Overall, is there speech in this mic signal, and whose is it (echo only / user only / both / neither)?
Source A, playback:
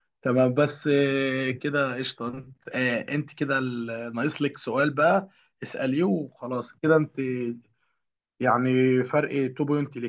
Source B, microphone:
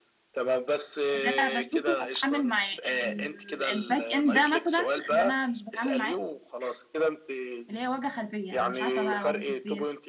both